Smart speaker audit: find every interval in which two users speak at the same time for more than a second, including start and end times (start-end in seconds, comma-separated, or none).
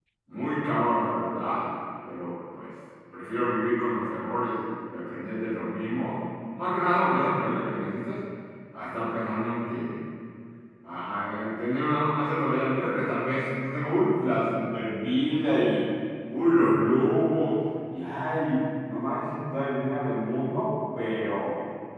none